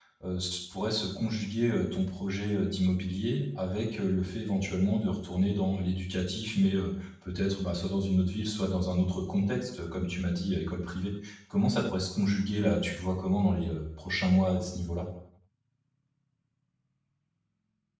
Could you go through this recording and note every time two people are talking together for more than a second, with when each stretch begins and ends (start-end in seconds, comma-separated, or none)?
none